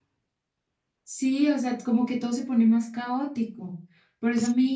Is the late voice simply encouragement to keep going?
Yes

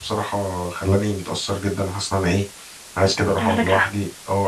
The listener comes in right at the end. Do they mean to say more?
No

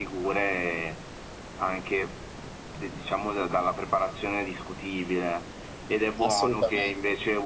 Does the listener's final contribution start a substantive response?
No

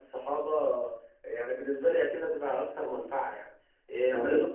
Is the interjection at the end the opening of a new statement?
No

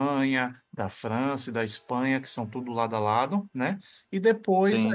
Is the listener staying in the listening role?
Yes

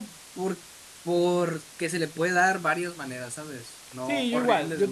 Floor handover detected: Yes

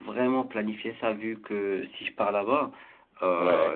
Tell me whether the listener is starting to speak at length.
No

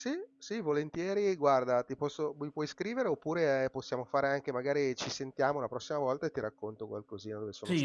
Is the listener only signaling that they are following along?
No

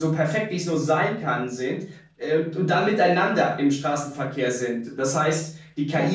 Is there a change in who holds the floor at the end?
No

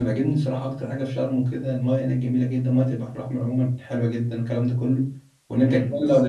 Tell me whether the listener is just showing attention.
No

